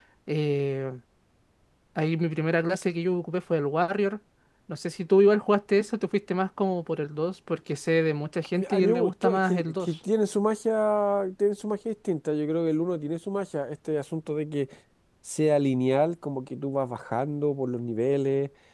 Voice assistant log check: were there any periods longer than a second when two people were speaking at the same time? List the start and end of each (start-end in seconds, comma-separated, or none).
8.5-9.9